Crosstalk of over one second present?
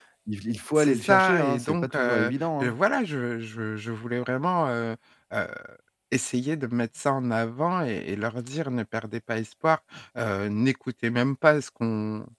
Yes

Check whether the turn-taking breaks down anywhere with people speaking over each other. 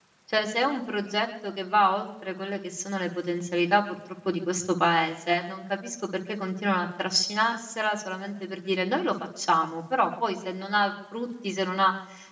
No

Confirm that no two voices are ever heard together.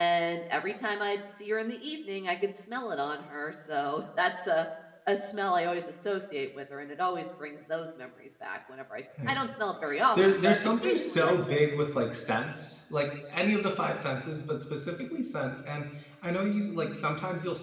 No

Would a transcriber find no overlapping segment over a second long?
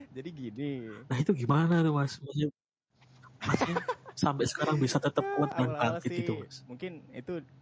No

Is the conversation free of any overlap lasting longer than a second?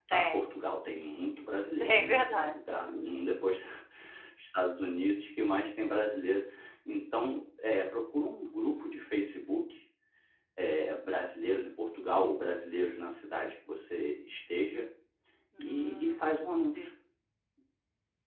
No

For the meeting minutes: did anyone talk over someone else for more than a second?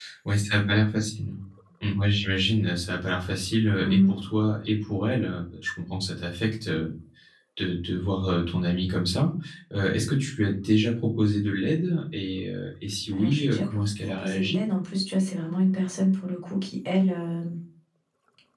Yes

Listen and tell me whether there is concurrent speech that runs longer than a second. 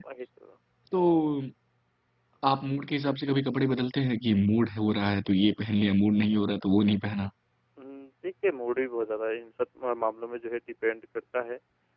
No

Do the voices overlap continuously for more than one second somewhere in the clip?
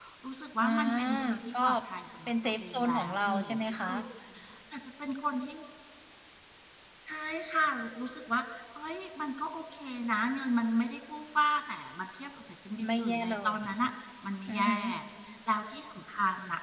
Yes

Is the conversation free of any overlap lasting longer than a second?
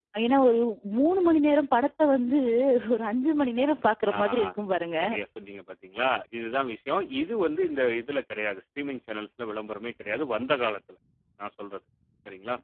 Yes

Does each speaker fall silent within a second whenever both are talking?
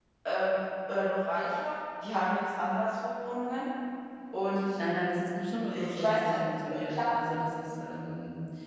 No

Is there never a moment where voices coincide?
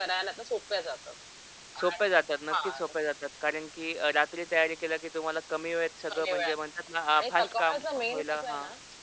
No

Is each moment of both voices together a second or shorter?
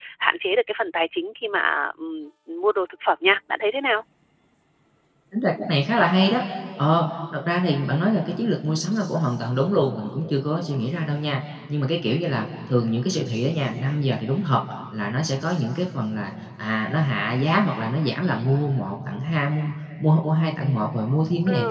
Yes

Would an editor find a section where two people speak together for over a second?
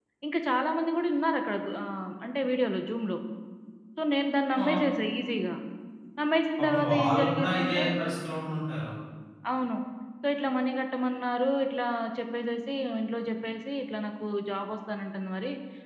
Yes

